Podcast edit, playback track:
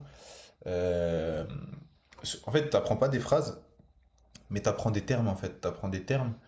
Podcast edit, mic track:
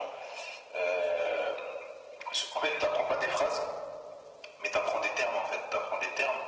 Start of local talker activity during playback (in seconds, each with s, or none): none